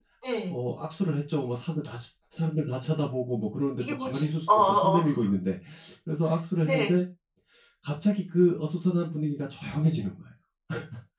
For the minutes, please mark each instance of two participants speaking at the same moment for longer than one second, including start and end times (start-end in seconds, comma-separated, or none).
3.8-5.0